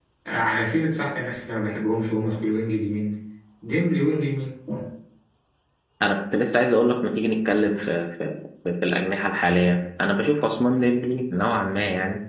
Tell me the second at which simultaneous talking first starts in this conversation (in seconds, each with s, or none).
none